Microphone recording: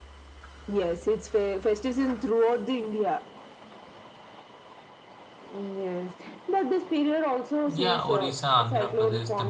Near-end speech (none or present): present